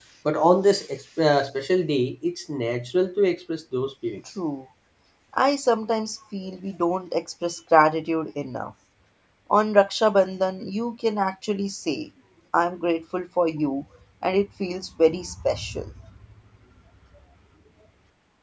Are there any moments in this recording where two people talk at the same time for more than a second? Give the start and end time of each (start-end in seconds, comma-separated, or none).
none